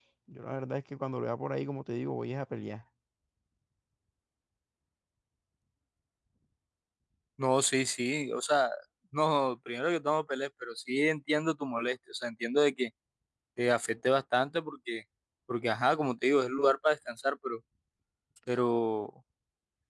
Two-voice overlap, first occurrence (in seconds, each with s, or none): none